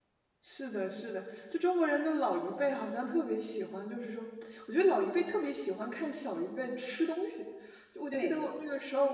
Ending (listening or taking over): listening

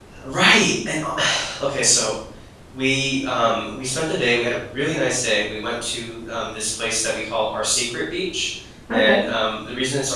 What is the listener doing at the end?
listening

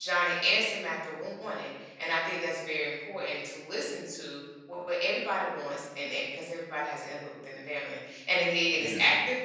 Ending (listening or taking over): listening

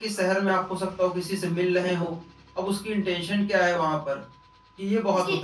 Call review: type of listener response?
taking over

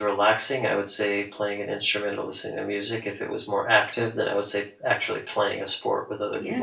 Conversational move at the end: taking over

